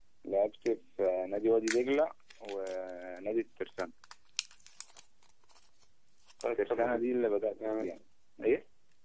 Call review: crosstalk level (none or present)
present